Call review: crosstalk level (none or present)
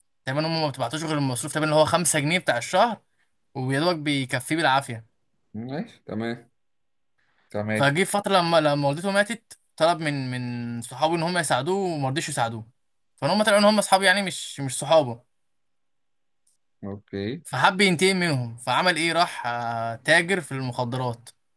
none